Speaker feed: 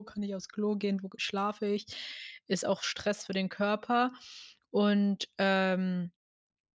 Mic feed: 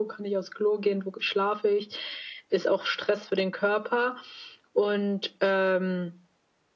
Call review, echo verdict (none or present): present